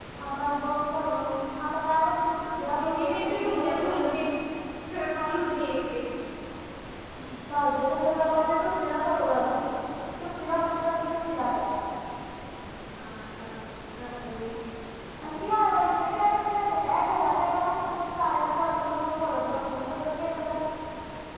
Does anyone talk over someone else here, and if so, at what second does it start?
2.5 s

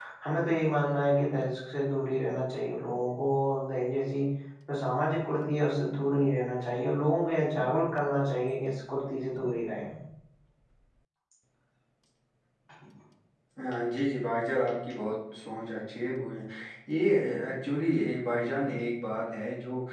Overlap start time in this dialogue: none

